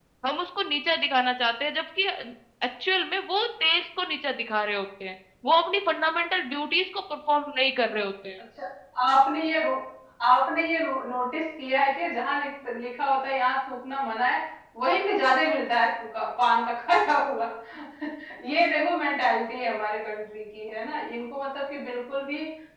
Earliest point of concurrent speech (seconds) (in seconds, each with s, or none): none